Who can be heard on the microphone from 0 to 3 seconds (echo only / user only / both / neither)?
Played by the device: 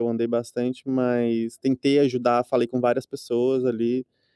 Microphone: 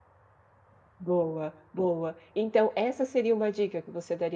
user only